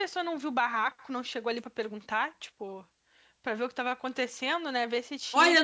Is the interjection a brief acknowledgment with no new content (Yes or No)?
No